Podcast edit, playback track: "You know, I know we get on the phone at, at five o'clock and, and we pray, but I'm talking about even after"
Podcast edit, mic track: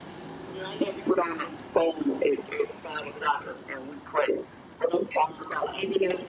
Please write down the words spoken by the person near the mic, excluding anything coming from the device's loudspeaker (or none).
none